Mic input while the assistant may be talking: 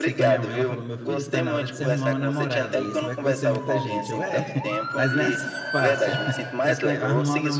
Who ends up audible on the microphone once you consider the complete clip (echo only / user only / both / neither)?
both